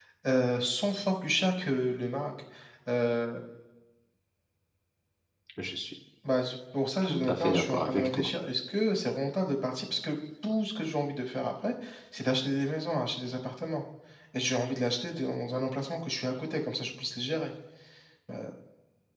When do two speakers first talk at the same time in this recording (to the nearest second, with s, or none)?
7 s